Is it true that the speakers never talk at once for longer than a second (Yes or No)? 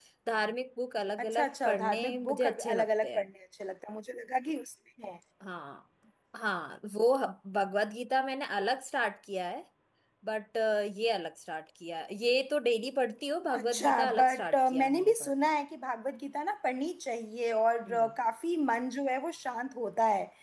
No